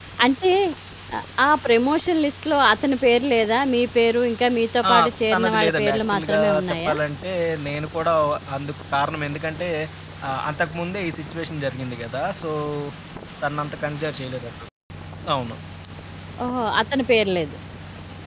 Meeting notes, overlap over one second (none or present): present